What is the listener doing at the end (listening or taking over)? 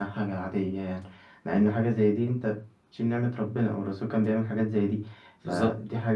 listening